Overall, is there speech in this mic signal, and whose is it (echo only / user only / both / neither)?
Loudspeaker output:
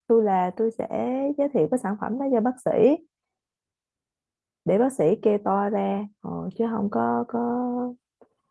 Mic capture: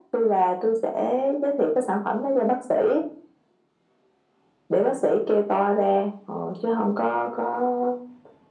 echo only